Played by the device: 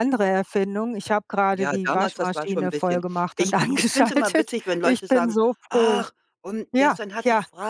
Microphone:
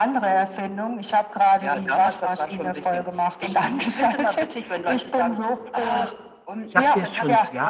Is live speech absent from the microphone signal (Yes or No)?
No